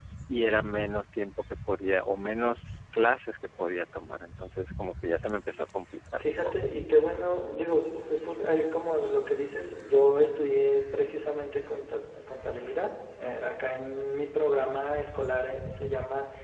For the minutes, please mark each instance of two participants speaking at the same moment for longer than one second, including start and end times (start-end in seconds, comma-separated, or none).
none